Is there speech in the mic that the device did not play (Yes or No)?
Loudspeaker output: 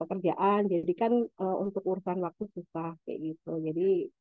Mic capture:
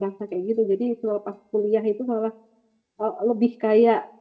Yes